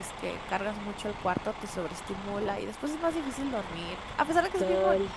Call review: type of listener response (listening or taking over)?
taking over